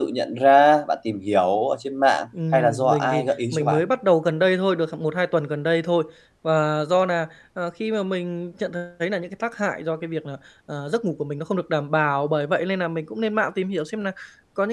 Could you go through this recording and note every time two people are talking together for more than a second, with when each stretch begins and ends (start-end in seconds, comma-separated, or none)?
2.5-3.8